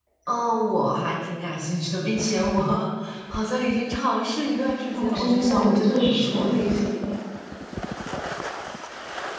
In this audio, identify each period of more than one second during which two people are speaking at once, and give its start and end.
4.9-6.7

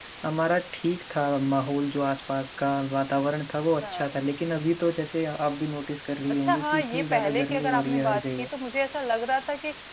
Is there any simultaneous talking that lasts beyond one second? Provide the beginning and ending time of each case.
6.4-8.5

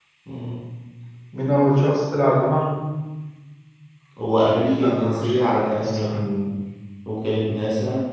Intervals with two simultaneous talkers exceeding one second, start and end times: 4.8-6.2

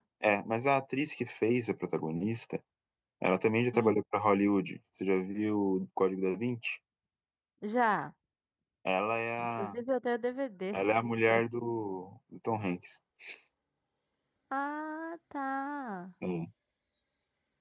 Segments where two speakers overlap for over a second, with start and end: none

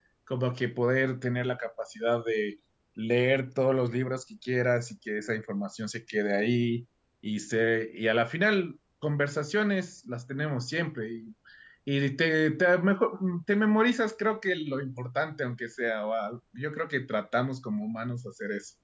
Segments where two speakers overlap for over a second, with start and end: none

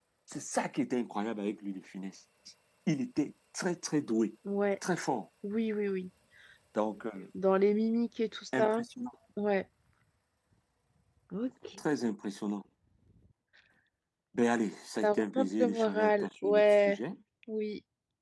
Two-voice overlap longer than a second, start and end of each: 15.0-17.0

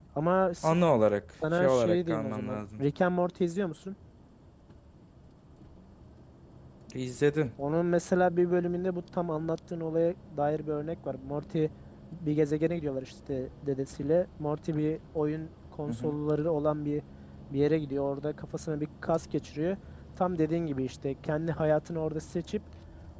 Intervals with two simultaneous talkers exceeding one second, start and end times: 1.5-2.8

